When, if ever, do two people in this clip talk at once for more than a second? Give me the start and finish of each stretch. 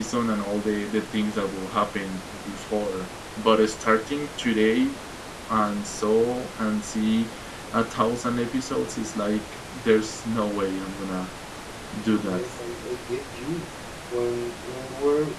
none

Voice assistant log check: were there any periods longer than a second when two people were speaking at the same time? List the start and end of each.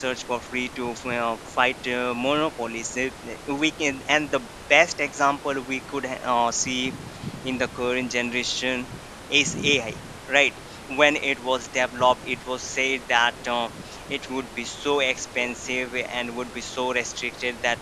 none

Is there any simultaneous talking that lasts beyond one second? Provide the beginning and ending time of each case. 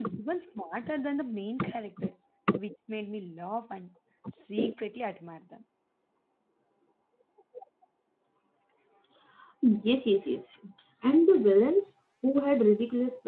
none

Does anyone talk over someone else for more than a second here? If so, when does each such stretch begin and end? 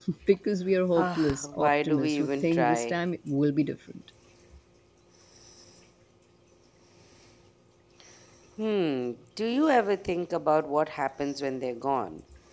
0.9-3.0

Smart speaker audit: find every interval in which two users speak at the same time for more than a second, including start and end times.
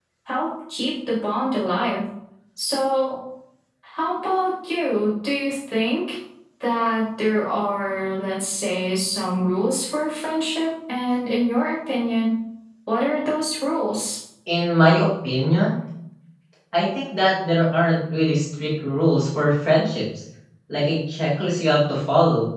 none

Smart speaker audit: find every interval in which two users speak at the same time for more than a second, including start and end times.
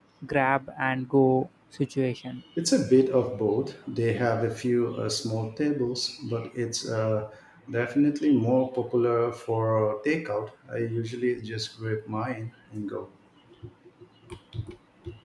none

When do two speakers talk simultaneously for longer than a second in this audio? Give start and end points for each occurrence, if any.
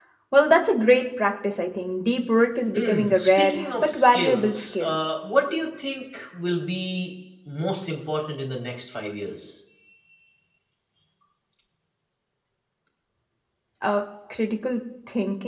2.7-5.0

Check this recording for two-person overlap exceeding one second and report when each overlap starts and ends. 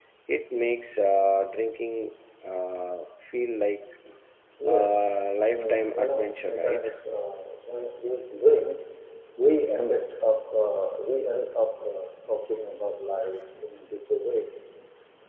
5.5-6.9

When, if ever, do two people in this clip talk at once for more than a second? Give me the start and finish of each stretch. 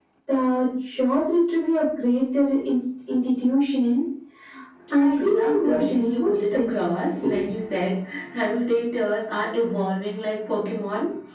4.9-6.7

